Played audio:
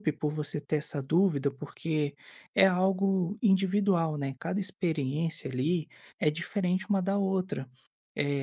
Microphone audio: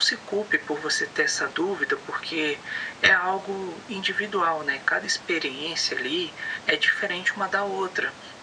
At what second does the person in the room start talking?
none

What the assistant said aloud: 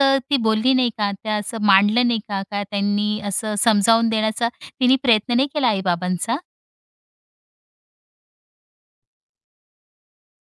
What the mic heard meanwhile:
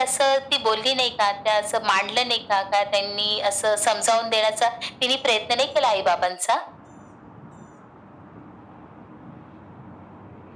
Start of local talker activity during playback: none

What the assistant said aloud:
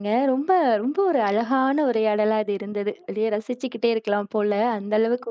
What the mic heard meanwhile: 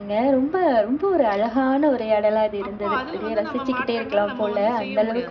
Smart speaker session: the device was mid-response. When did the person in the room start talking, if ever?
3 s

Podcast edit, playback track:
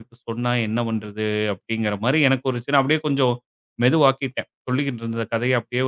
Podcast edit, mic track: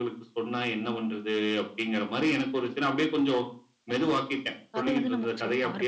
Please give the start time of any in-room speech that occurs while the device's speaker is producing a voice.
5 s

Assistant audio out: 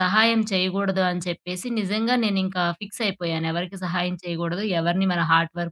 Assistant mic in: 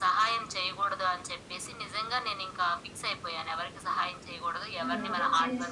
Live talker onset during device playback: 5 s

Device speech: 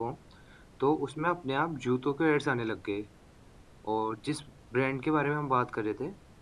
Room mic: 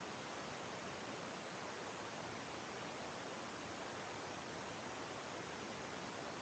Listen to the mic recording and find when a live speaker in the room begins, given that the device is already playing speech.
none

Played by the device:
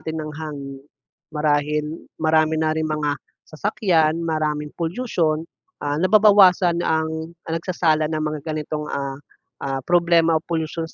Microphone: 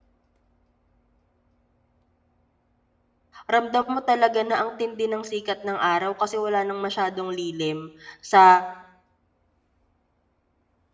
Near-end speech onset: 3 s

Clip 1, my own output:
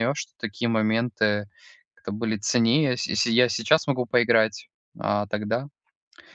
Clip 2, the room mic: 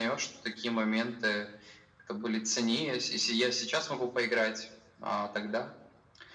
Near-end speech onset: none

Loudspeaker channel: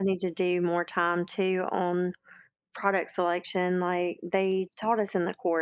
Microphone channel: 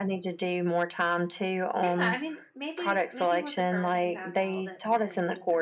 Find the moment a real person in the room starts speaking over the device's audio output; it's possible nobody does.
2 s

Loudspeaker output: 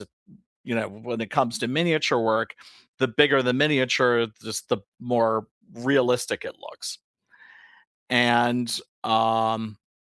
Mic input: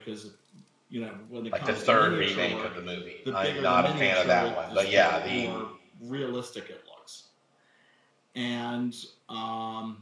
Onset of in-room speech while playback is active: 2 s

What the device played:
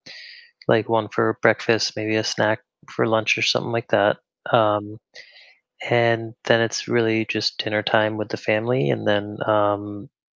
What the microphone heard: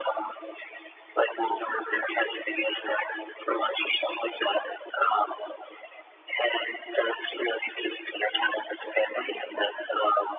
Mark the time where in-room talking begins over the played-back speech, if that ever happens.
none

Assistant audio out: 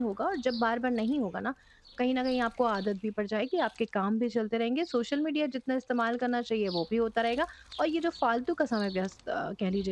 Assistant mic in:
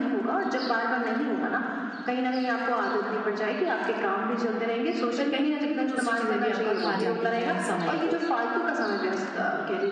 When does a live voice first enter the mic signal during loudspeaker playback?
5 s

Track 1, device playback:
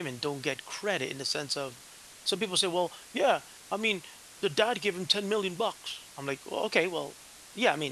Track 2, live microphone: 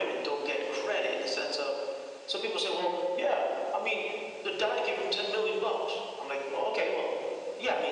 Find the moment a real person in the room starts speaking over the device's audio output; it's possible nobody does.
none

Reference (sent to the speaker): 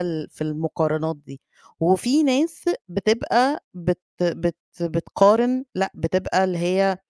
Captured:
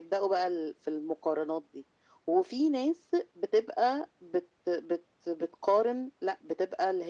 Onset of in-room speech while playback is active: none

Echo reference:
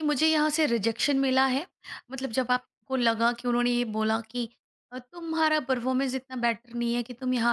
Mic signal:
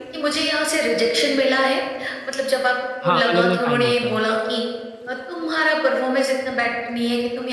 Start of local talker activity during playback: 3 s

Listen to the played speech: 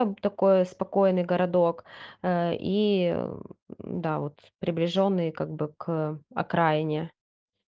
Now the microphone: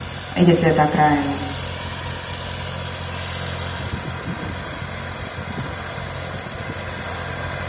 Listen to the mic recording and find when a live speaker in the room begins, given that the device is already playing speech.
0 s

